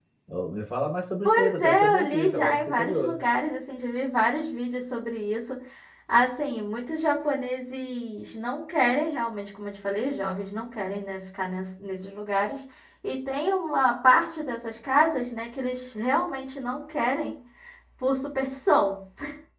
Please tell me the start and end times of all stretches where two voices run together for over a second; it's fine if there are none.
1.2-3.2

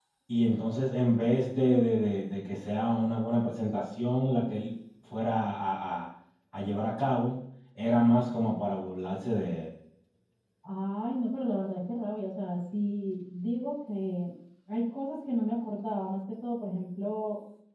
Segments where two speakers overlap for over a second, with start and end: none

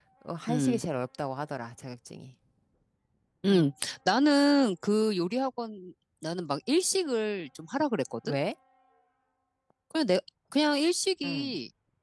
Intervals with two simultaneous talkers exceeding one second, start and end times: none

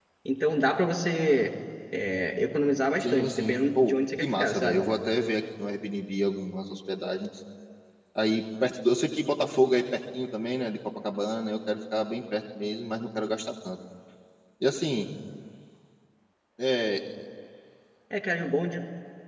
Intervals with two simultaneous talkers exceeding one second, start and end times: 3.0-4.8

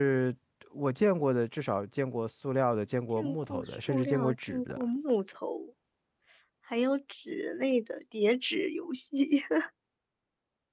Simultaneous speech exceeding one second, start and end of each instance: 3.1-4.8

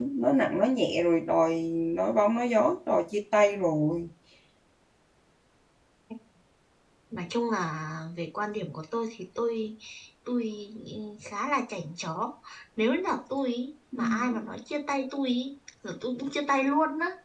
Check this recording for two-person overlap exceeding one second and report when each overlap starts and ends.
none

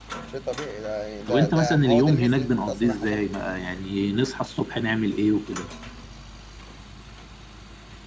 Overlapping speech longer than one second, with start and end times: 1.3-3.2

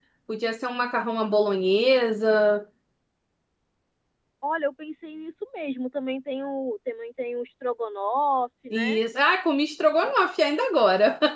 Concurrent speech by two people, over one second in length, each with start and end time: none

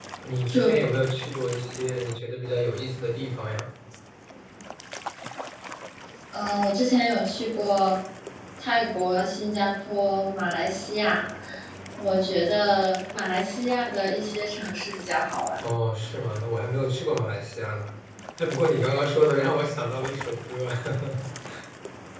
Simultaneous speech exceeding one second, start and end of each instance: none

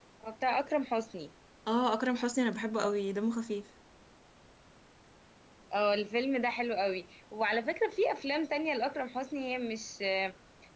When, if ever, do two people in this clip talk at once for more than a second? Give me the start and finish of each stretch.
none

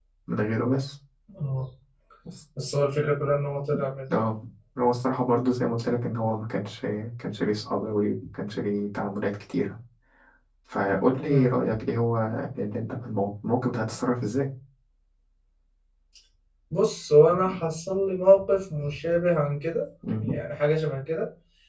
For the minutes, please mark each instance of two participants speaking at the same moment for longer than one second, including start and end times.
none

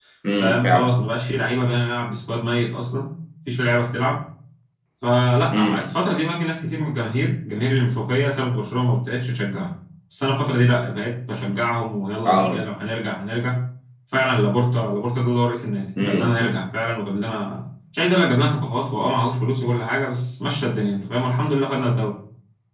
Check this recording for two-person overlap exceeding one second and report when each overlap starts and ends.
none

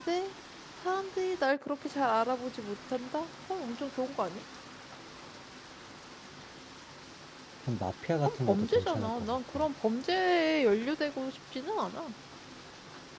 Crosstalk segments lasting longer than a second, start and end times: 8.3-9.7

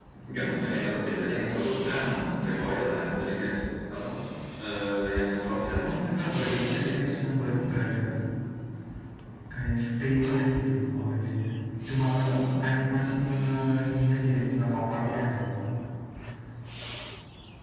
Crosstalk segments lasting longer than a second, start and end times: 5.9-7.2

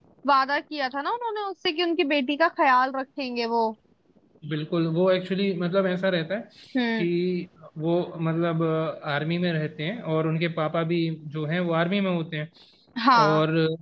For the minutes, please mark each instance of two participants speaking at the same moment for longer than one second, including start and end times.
none

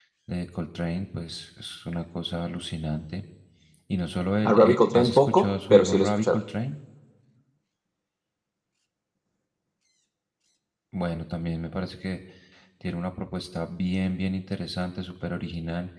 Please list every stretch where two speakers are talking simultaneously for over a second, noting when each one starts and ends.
4.4-6.4

